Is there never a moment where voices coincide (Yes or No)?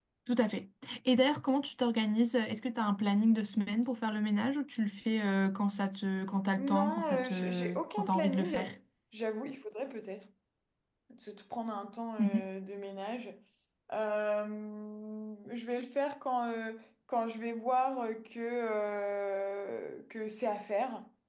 No